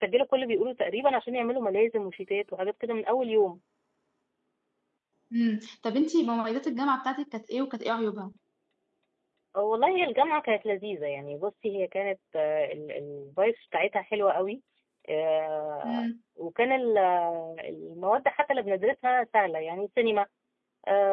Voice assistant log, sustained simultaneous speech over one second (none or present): none